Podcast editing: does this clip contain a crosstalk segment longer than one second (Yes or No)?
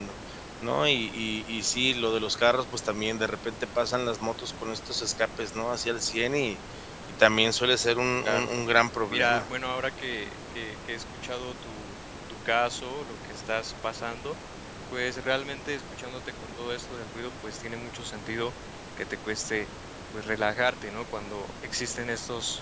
No